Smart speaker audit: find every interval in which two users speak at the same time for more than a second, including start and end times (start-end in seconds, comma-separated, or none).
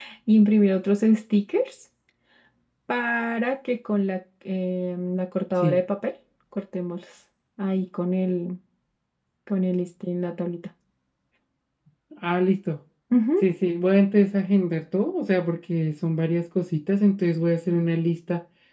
none